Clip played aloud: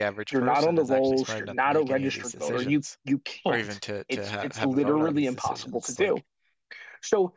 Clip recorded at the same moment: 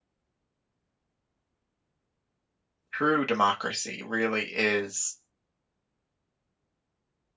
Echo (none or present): none